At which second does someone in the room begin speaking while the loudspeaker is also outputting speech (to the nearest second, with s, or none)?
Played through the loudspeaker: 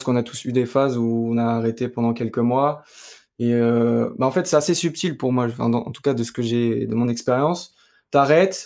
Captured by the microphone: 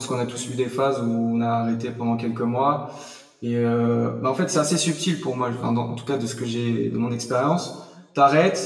none